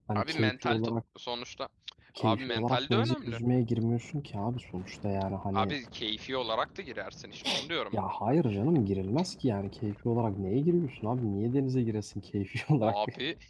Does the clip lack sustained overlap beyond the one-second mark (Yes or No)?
No